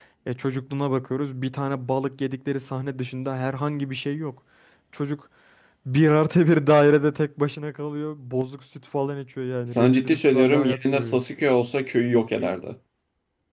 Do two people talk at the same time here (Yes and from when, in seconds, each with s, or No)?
Yes, from 9.7 s